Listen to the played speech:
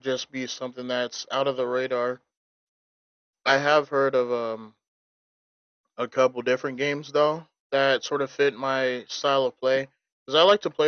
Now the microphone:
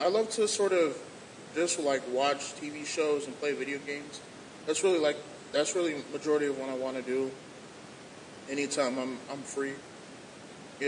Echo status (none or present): none